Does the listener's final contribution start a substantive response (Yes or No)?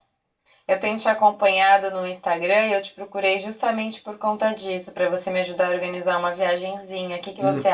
Yes